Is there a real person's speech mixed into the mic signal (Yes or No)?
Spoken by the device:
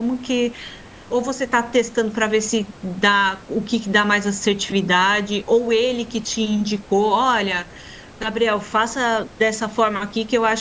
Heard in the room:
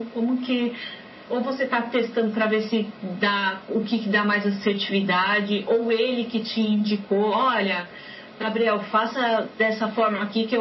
No